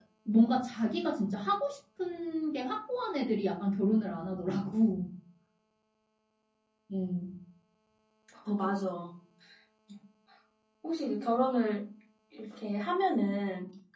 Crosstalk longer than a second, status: none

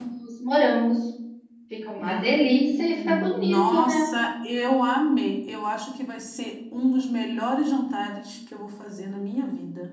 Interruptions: present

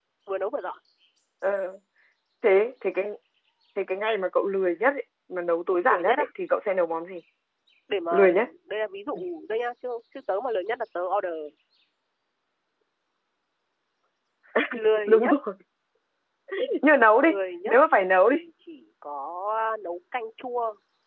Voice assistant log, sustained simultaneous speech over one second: none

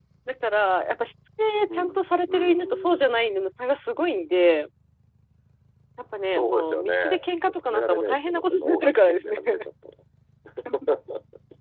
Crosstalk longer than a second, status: present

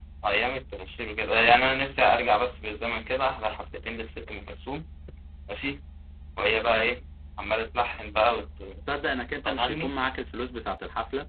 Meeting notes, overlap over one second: none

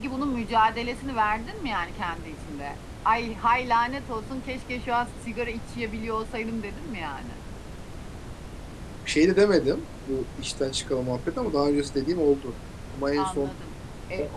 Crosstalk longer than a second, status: none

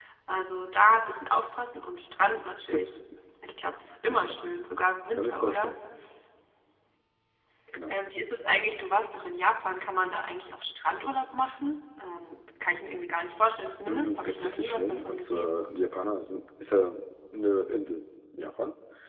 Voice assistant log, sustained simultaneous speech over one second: present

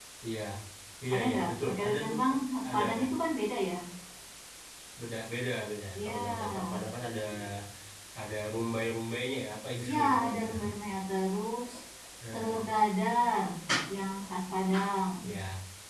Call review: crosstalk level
present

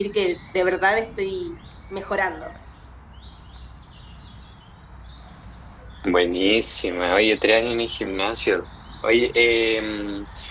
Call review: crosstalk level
none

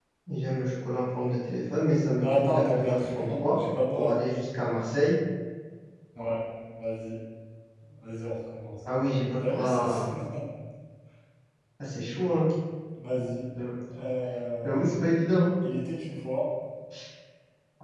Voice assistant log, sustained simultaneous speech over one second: present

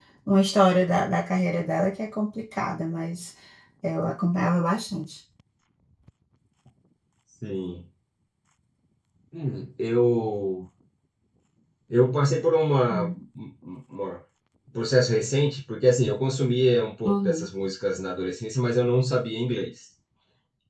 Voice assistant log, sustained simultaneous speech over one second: none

